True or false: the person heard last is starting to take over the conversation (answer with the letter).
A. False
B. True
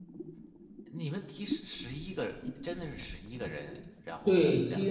B